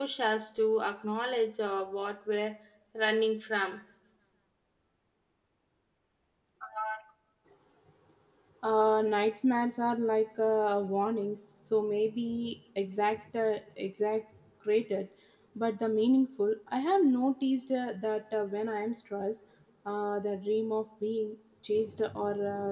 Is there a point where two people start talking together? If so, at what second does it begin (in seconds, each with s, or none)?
none